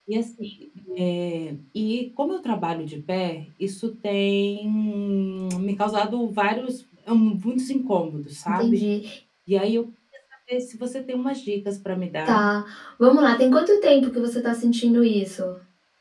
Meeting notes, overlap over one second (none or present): none